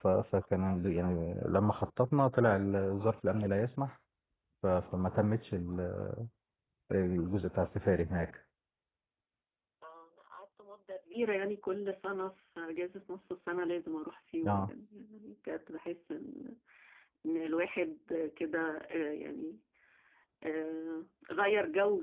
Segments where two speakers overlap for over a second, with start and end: none

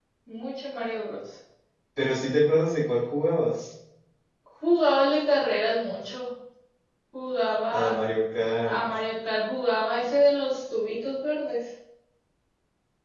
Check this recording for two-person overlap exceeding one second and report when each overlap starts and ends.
none

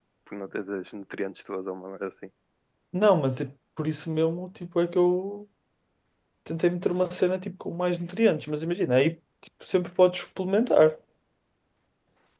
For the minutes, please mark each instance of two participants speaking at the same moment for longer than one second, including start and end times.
none

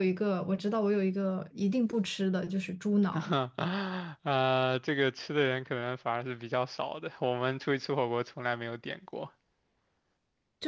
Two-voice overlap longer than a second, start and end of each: none

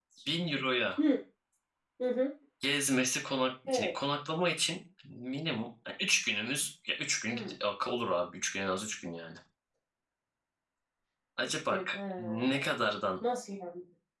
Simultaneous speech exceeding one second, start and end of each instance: none

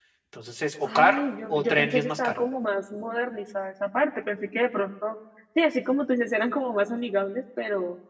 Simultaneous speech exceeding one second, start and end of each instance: 1.0-2.4

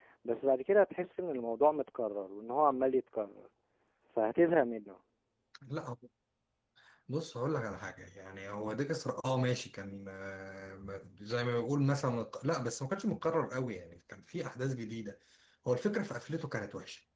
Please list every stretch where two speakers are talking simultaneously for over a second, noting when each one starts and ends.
none

